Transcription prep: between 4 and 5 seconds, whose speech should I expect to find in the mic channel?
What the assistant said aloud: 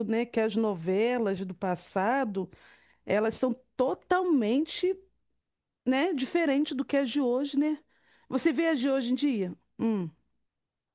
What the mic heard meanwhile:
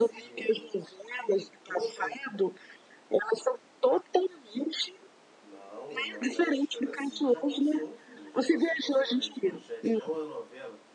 echo only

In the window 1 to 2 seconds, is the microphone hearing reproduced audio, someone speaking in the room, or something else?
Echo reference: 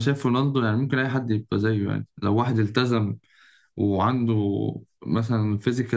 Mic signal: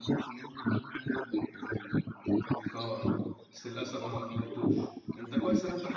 echo only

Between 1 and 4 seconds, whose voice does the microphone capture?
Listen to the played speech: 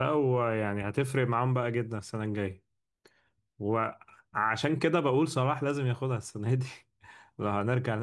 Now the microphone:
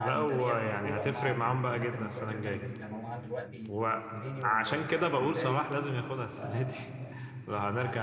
both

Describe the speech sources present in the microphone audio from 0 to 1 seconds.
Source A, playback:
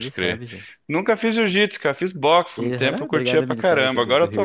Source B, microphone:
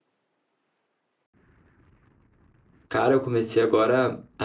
neither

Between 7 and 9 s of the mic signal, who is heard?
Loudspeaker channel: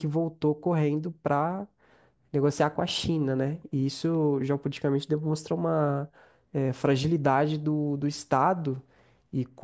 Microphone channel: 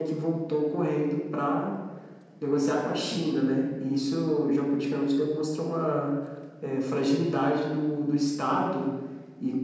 echo only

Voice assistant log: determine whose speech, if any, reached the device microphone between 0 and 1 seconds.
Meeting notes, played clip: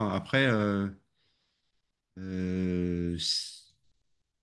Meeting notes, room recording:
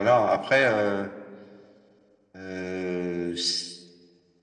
echo only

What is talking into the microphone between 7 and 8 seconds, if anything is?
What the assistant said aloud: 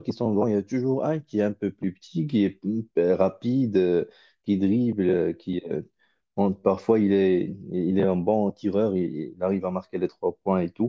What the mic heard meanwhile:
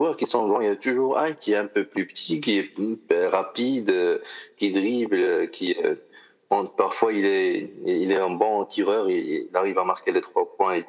echo only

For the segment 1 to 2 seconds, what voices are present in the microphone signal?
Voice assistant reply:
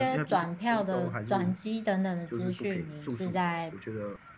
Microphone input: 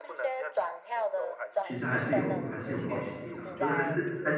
both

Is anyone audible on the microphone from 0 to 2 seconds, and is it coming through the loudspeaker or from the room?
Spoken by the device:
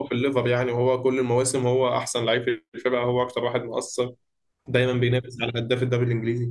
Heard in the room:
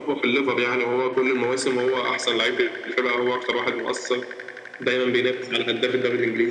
echo only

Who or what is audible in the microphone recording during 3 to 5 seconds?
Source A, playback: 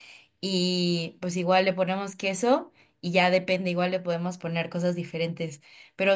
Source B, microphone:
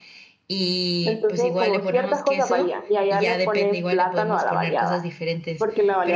both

